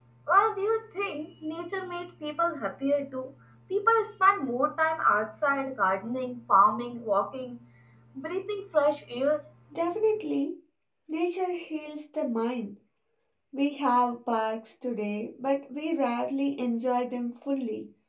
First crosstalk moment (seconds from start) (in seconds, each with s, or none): none